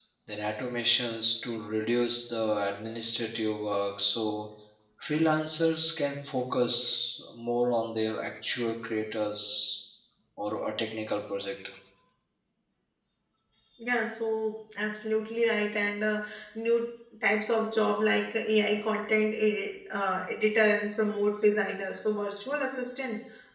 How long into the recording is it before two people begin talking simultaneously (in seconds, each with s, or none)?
none